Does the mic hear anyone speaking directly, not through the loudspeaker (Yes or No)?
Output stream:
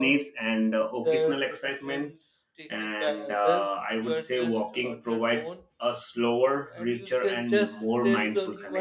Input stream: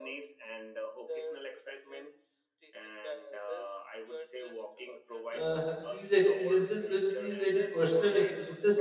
Yes